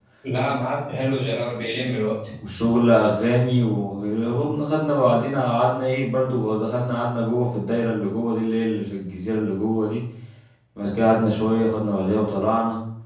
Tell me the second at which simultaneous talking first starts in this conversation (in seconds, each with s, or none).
none